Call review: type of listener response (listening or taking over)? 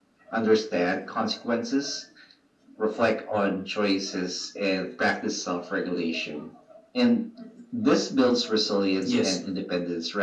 listening